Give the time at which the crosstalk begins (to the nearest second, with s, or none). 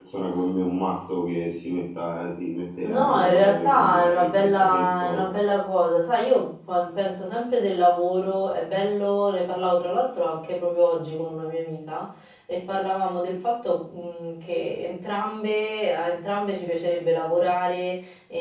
3 s